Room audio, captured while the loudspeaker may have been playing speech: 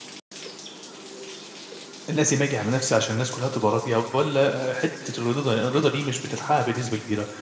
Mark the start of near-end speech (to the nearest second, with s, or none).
2 s